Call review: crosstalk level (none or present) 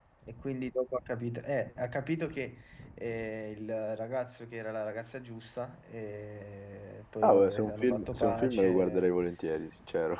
present